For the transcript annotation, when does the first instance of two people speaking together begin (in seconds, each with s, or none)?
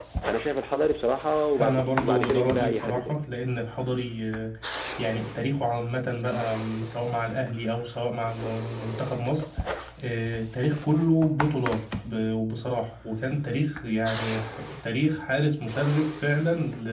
1.6 s